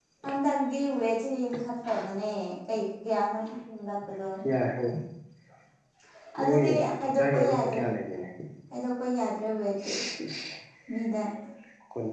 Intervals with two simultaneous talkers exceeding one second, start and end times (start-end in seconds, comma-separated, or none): 6.4-7.8